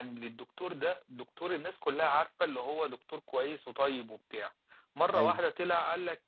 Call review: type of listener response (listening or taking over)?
listening